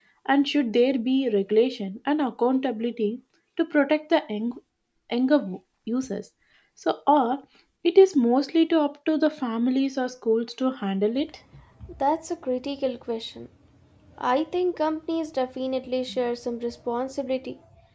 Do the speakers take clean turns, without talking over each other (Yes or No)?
Yes